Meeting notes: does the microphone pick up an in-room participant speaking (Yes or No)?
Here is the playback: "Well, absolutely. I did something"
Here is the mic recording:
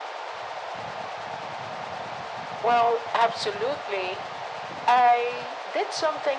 No